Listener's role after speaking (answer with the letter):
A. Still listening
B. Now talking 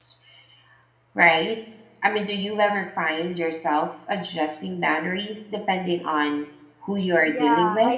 B